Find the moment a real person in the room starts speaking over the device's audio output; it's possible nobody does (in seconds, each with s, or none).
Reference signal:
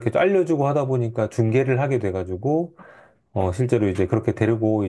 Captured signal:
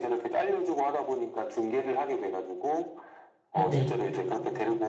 3.5 s